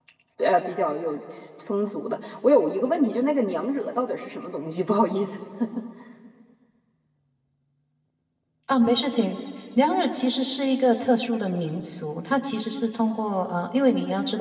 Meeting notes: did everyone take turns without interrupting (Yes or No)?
Yes